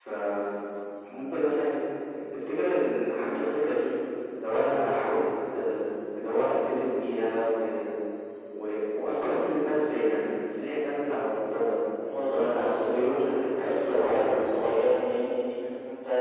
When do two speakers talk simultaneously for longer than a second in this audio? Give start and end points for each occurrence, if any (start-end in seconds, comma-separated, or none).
12.2-14.6